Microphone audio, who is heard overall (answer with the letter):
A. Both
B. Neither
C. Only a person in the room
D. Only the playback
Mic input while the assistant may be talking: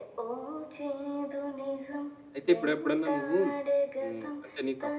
A